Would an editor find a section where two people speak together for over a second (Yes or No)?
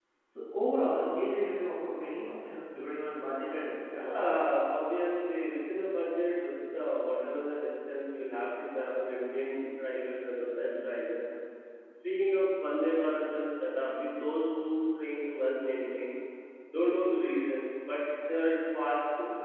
No